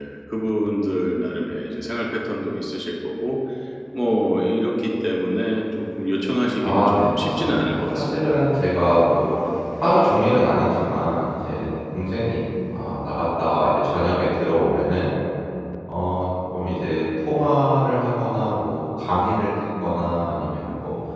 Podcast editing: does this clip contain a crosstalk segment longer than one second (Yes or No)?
Yes